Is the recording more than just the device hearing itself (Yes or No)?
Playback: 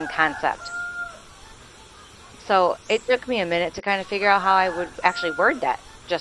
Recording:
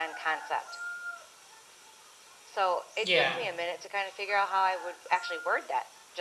Yes